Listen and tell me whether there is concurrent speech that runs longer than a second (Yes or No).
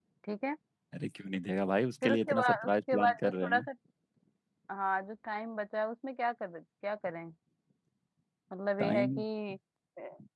Yes